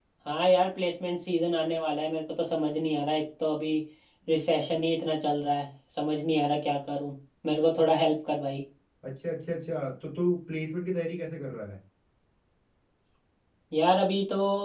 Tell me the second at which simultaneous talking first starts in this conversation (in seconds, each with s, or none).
none